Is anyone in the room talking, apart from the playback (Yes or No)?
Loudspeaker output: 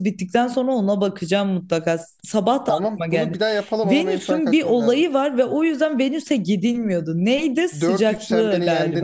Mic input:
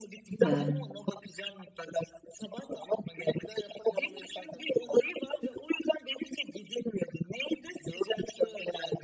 Yes